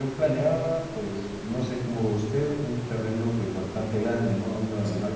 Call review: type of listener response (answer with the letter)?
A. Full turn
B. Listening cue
B